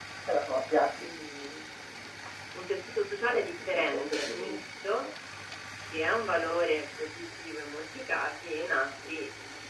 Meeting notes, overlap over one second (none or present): present